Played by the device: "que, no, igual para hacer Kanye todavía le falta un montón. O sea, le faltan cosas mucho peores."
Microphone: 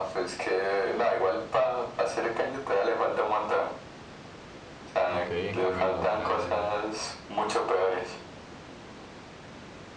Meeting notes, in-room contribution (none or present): present